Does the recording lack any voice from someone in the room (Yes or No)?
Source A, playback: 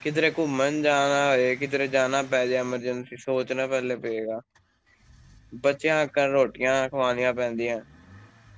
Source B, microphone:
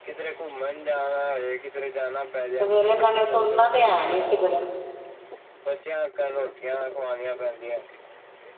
No